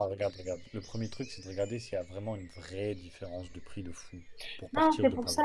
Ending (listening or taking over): taking over